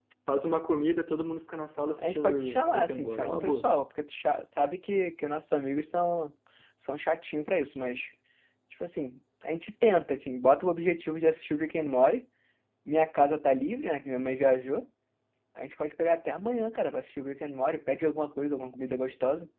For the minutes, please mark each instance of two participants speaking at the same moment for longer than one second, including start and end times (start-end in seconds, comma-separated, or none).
2.0-3.7